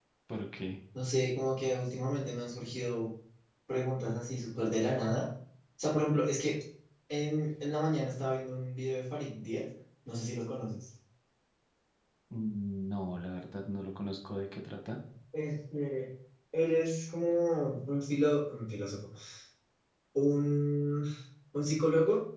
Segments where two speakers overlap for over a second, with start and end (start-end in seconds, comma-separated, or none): none